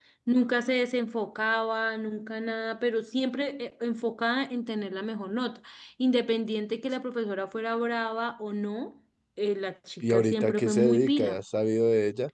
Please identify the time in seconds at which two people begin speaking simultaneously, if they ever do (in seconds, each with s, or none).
10.0 s